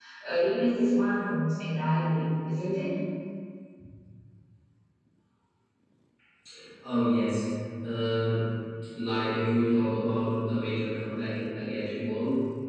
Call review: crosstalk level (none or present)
none